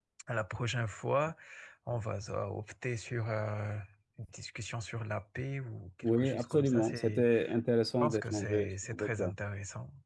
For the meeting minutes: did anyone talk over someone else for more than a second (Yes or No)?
Yes